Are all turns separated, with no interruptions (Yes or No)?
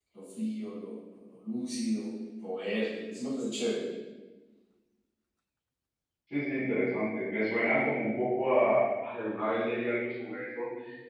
Yes